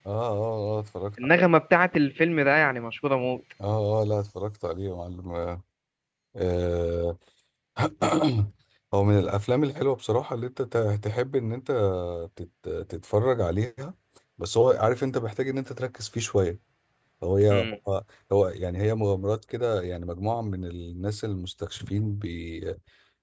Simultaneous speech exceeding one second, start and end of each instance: none

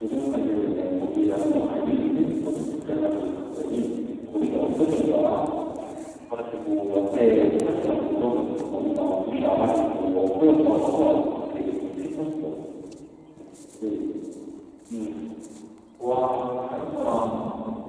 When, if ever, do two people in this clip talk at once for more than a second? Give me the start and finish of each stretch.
none

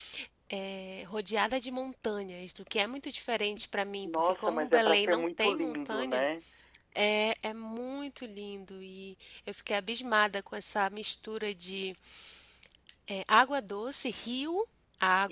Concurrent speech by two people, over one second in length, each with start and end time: 4.0-6.2

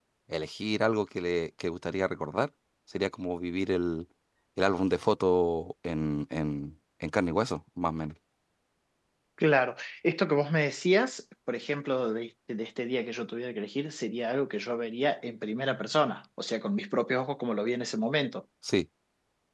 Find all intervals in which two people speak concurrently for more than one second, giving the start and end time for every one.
none

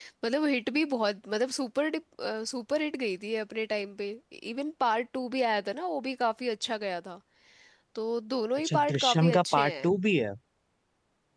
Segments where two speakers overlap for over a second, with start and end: 8.6-9.9

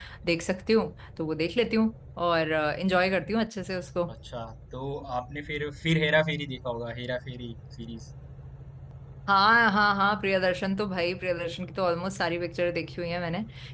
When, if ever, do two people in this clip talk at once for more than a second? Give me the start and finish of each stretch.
none

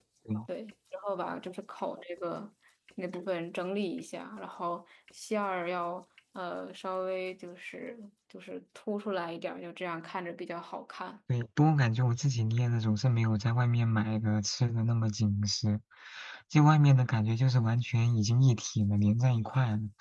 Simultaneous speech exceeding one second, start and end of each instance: none

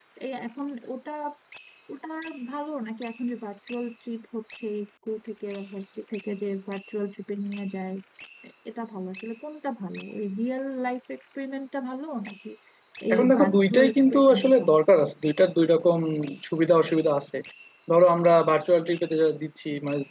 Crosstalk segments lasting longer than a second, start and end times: 13.1-14.8

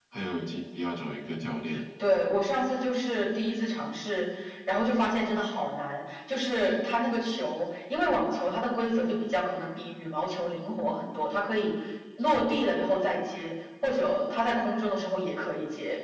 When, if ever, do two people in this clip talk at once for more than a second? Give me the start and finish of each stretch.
none

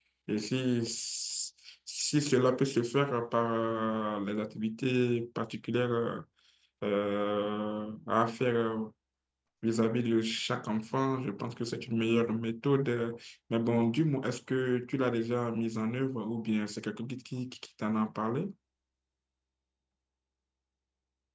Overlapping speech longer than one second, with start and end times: none

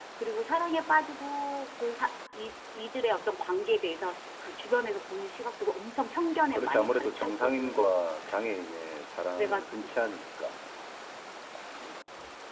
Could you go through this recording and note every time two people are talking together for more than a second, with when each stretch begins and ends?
6.5-7.9

